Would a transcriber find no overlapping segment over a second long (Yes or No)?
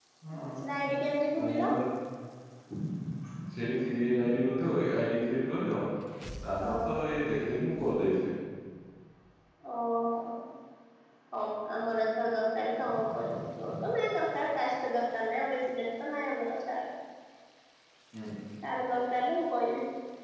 Yes